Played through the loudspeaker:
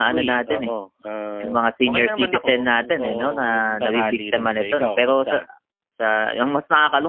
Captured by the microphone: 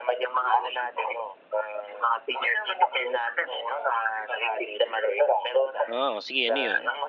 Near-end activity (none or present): present